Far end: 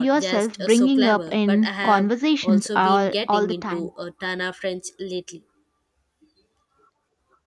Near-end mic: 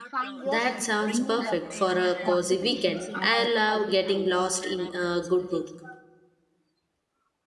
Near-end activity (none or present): present